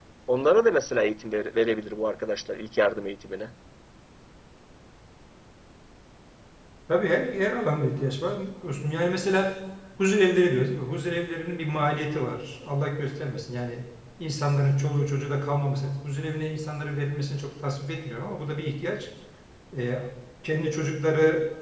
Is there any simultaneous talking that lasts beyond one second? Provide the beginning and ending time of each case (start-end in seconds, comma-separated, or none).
none